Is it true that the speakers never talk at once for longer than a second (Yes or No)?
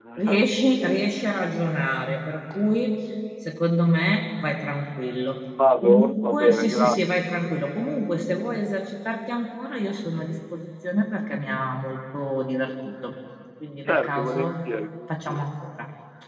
No